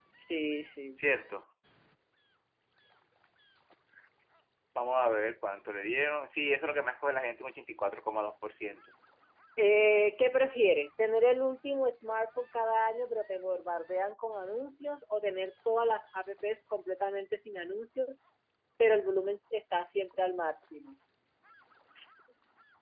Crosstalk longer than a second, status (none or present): none